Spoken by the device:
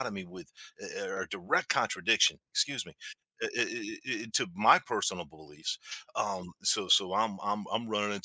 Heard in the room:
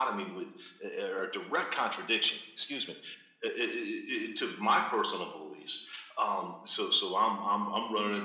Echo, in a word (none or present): present